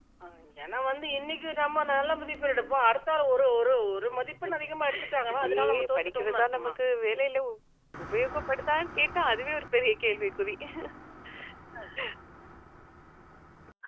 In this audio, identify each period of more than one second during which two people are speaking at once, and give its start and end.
5.3-6.7

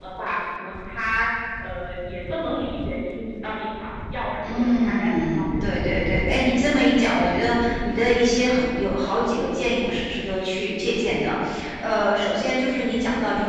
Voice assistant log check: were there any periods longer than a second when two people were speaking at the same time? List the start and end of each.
4.4-5.8

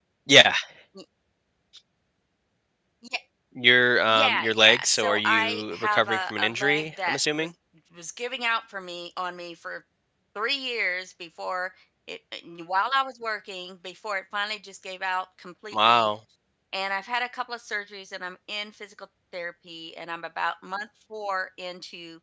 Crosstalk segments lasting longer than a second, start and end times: 4.1-7.5

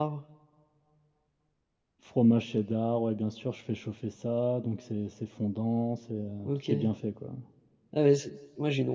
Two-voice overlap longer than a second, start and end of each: none

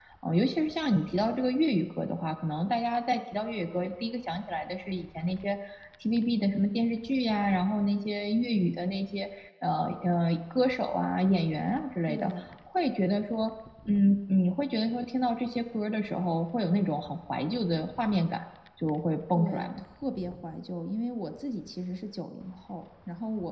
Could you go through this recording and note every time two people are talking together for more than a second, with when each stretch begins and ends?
none

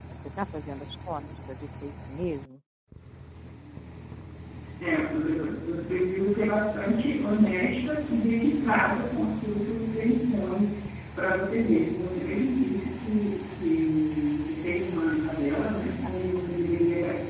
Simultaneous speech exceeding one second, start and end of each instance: none

